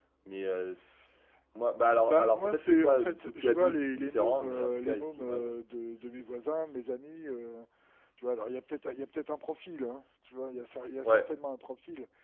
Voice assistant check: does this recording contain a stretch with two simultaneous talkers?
Yes, from 2.0 s

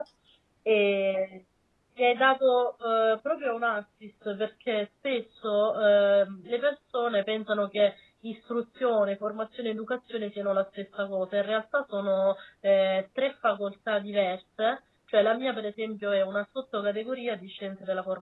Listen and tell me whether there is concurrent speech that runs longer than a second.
No

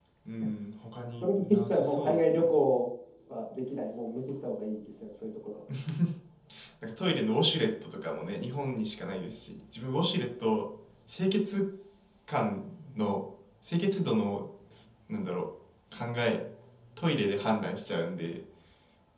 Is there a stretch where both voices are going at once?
Yes, from 1.2 s

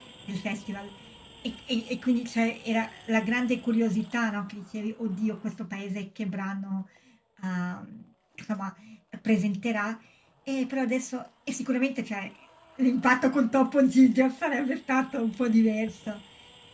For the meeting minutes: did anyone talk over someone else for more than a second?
No

